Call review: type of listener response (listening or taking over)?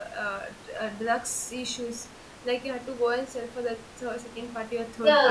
taking over